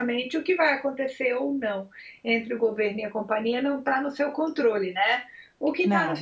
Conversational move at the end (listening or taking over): listening